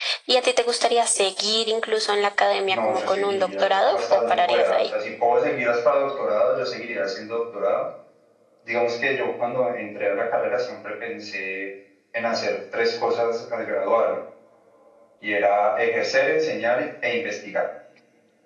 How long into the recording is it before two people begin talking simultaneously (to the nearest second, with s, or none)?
3 s